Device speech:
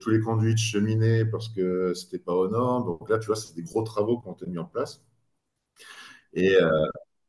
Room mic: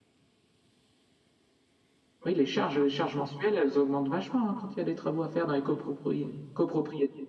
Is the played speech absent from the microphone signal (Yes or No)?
Yes